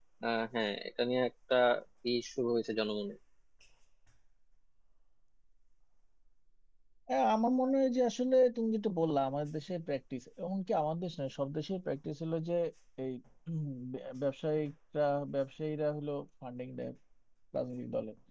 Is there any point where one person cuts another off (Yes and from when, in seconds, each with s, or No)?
No